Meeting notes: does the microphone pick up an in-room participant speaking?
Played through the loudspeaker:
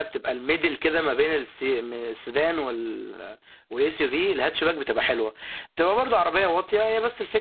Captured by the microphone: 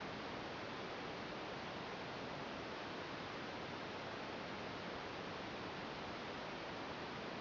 No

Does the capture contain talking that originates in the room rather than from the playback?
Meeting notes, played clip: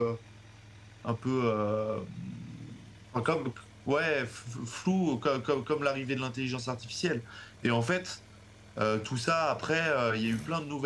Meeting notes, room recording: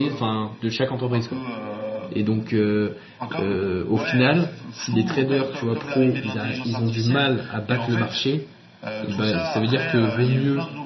Yes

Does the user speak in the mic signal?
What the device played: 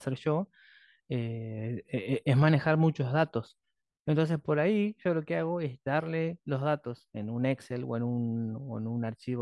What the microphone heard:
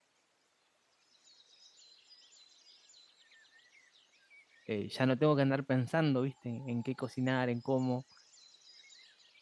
Yes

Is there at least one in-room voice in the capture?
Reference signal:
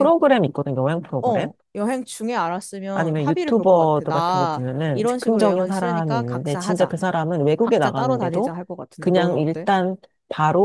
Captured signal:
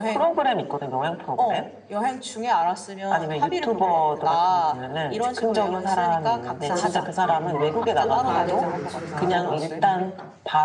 Yes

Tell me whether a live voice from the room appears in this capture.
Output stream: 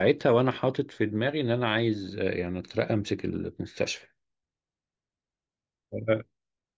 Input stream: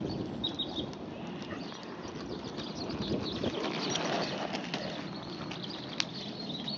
No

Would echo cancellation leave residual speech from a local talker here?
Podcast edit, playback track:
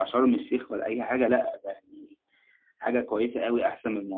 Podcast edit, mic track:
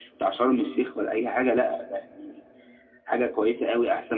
No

